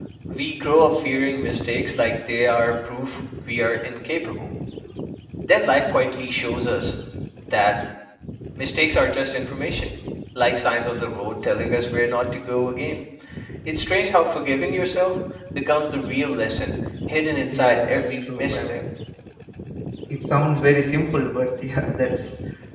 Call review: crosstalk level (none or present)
present